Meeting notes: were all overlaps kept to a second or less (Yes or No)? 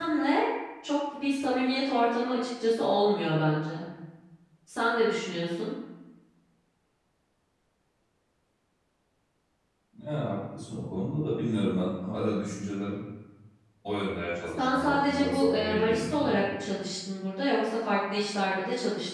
No